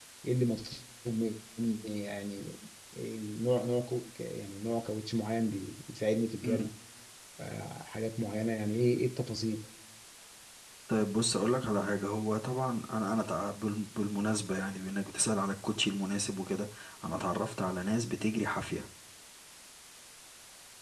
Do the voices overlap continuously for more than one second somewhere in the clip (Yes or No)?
No